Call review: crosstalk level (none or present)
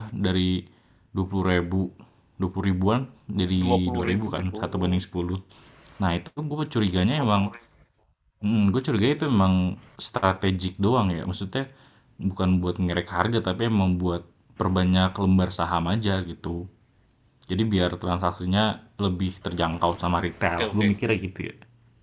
present